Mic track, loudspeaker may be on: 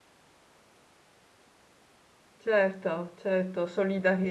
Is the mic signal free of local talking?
No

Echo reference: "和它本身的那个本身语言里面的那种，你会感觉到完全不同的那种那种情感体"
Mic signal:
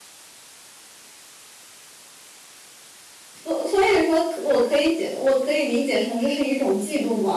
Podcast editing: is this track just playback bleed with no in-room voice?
No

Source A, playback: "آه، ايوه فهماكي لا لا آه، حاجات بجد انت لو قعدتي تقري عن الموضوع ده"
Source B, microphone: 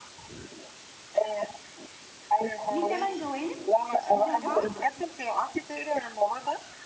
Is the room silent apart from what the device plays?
No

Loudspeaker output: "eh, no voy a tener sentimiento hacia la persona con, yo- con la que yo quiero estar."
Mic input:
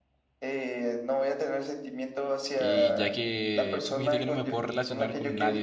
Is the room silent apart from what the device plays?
No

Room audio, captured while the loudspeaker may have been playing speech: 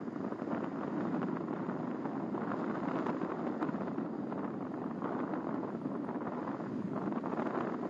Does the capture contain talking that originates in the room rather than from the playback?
No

